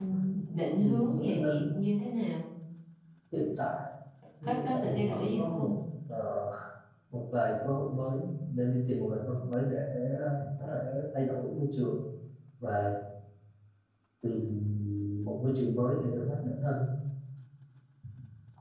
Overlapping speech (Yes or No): Yes